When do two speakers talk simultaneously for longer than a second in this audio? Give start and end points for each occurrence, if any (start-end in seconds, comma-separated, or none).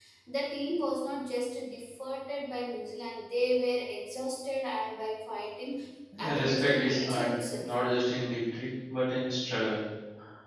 6.4-7.8